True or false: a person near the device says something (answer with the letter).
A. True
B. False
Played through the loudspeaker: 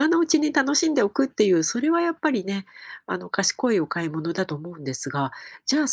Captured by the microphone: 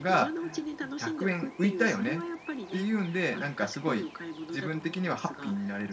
A